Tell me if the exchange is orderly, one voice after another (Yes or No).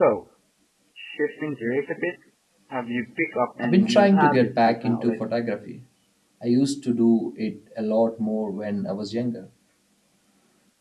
No